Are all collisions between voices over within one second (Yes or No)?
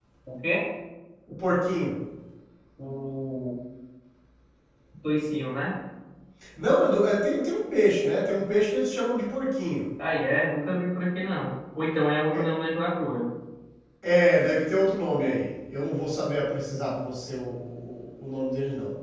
Yes